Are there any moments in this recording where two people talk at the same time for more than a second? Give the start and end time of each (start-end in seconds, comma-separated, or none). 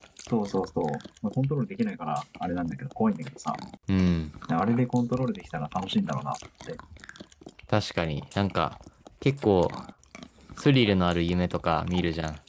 none